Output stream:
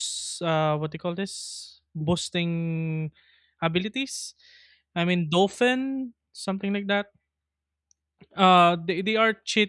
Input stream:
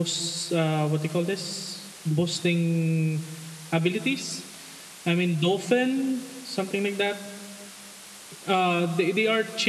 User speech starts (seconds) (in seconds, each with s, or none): none